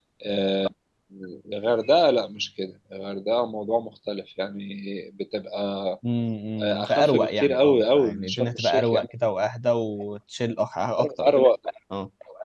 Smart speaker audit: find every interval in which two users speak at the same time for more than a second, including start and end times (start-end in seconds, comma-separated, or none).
6.6-9.1